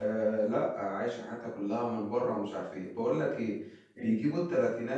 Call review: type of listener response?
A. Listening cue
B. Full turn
A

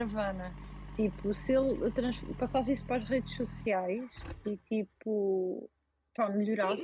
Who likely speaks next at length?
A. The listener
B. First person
A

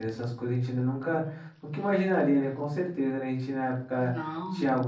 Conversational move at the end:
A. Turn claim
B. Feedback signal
B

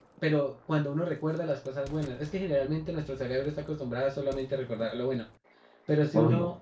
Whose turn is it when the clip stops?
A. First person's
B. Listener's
A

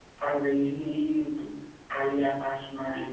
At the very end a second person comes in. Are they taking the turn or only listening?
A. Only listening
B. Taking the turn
A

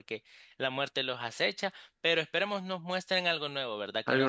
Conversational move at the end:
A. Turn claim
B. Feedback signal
B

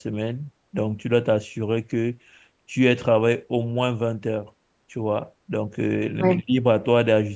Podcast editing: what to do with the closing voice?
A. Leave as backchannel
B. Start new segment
A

